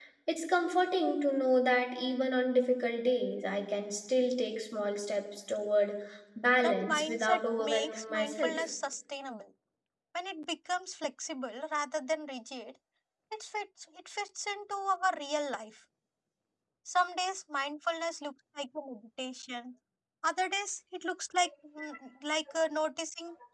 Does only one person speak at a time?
No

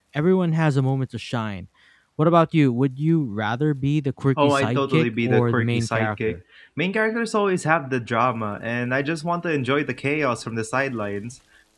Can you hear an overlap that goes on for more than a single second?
Yes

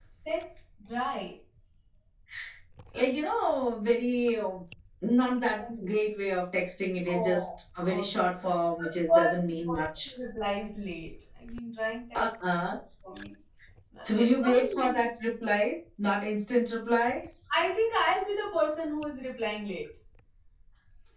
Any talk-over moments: Yes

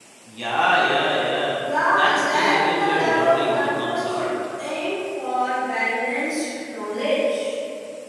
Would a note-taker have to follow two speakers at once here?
Yes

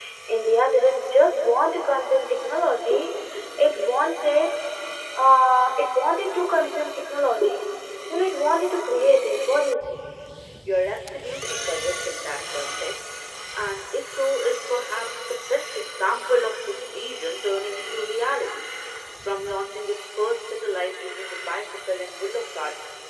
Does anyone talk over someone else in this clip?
No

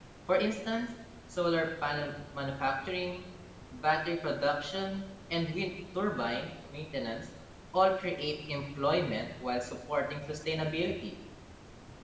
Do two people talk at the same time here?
No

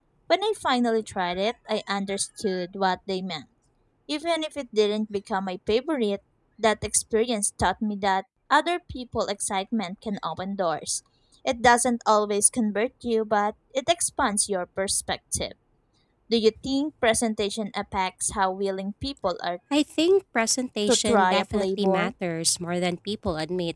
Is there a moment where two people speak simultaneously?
Yes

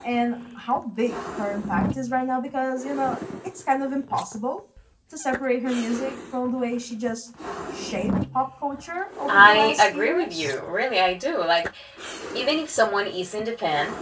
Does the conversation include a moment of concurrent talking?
Yes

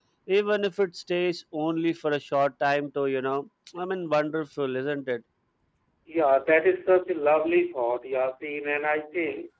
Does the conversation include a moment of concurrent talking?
No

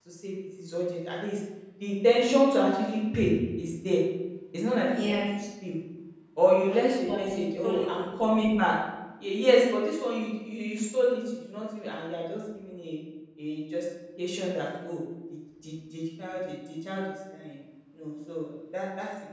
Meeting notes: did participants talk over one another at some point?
Yes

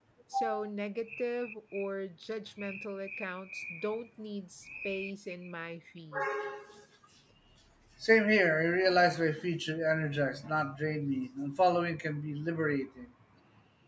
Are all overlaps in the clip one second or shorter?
Yes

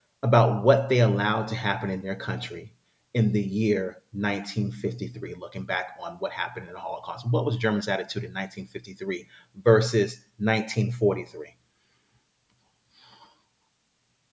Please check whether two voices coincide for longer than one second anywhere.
No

